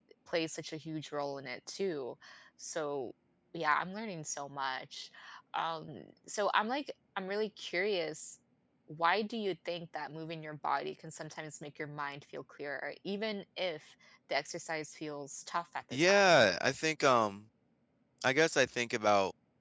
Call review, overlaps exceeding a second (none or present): none